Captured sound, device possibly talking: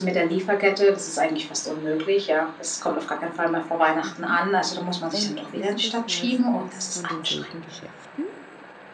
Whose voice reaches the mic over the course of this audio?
both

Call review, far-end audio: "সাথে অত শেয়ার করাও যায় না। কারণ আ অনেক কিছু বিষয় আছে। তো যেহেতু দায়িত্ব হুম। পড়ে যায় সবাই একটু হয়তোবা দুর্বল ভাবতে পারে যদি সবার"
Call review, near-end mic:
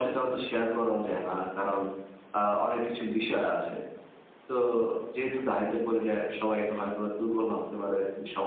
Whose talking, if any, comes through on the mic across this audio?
echo only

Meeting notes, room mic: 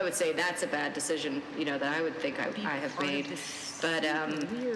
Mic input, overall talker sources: both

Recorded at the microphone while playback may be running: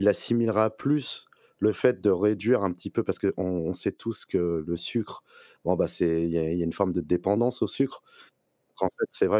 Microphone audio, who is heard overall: user only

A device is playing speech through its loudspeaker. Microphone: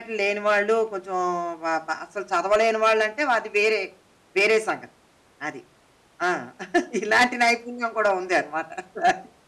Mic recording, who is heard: echo only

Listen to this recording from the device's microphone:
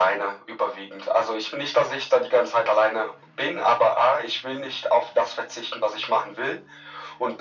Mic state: echo only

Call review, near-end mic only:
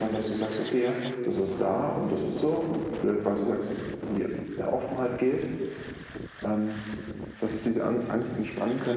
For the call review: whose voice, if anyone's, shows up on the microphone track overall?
echo only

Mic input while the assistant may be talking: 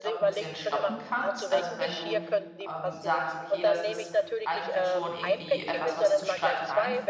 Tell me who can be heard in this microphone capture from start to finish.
both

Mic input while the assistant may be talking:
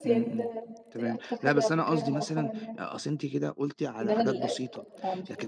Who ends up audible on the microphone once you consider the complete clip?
both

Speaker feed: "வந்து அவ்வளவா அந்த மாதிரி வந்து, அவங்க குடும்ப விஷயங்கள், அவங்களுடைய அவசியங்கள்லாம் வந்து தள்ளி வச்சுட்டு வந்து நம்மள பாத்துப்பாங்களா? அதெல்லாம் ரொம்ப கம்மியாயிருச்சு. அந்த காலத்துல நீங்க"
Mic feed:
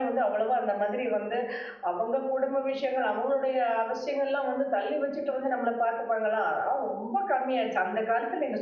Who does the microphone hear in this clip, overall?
echo only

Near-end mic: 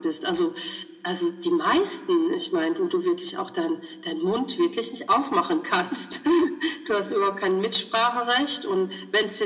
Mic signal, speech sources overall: echo only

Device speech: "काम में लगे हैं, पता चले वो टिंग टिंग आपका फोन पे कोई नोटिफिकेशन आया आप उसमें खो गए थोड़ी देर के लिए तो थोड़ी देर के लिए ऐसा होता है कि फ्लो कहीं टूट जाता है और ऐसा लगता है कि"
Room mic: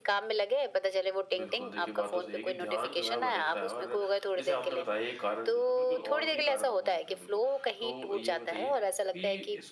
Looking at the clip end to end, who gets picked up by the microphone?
both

